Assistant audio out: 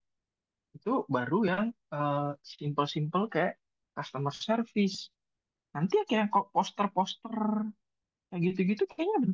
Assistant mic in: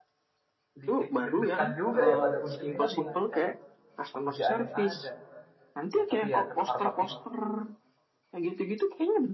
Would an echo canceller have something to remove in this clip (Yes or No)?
Yes